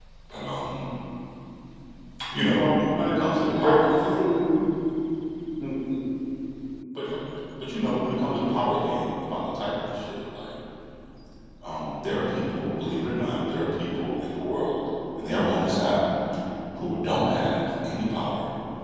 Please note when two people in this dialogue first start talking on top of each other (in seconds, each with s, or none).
2.5 s